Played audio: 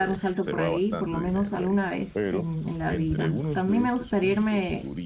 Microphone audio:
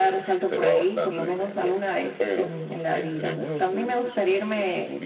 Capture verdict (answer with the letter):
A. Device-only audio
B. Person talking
A